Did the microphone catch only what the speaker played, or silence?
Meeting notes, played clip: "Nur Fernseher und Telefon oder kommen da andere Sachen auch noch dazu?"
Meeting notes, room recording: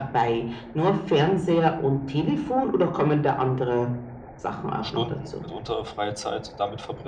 No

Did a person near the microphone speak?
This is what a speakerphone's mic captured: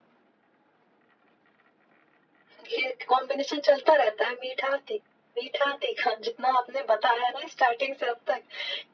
No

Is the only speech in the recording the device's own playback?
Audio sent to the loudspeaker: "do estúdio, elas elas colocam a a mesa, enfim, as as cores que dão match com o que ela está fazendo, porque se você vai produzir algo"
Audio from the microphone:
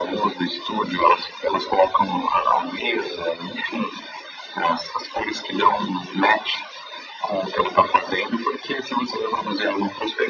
Yes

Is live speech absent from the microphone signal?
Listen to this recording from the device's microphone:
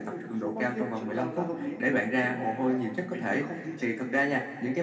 Yes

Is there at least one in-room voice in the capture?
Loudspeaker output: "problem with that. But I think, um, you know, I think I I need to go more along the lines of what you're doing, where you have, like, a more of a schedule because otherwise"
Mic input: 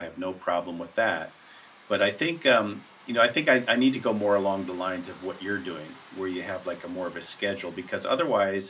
No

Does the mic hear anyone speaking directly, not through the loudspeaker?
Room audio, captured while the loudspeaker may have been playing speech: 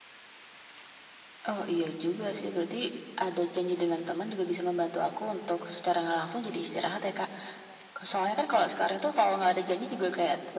No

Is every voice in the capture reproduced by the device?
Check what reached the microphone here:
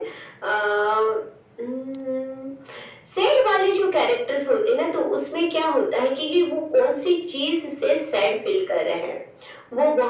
Yes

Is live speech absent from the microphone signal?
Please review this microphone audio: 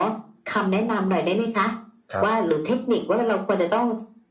No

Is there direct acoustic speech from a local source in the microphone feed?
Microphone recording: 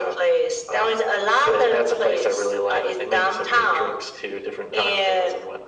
No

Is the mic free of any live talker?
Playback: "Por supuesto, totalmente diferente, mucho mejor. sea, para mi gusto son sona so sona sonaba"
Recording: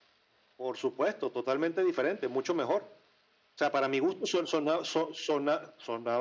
Yes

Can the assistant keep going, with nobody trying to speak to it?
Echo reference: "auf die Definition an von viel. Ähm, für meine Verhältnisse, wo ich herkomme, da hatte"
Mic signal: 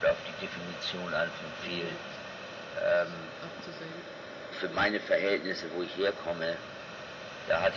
No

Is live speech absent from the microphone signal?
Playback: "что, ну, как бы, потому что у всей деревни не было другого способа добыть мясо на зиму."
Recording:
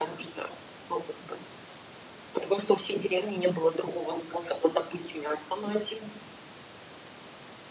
Yes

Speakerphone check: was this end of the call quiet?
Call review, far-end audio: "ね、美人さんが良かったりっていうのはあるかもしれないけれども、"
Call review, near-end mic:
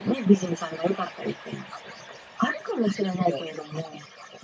No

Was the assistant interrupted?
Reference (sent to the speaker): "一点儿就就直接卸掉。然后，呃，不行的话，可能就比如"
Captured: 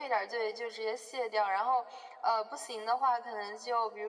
No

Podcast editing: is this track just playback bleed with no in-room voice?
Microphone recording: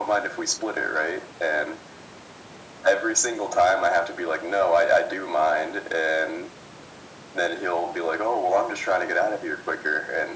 Yes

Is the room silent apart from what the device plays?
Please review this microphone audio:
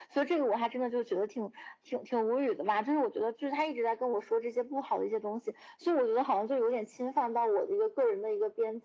Yes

